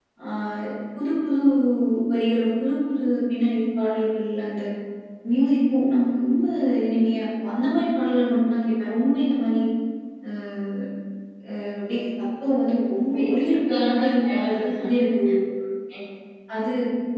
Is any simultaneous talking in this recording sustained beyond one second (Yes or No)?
Yes